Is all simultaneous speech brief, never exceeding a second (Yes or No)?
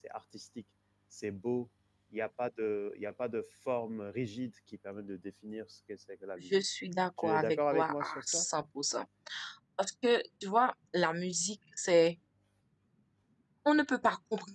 No